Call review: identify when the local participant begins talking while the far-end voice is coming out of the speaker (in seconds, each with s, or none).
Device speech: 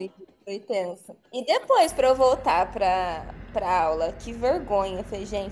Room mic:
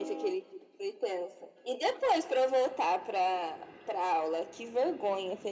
none